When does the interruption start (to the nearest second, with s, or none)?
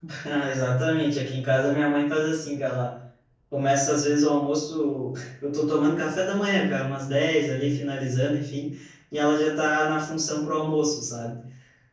none